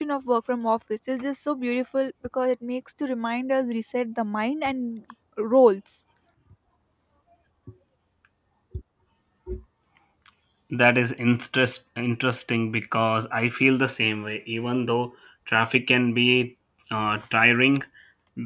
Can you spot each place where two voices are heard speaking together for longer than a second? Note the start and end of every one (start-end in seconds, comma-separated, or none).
none